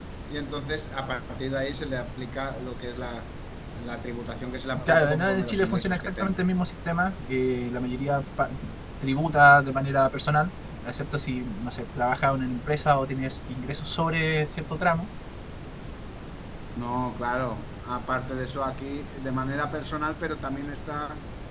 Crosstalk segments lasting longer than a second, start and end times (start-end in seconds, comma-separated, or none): 4.8-6.4